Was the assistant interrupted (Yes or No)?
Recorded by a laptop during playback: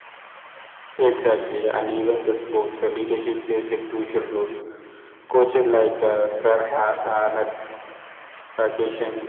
Yes